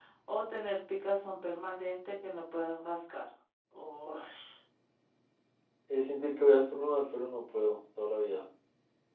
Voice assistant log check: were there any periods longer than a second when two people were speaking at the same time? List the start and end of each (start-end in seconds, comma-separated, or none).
none